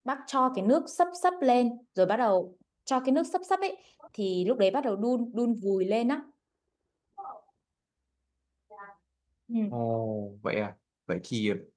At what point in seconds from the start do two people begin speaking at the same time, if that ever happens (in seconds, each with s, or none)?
none